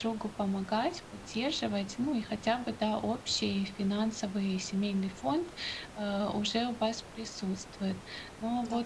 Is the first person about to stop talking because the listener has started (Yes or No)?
No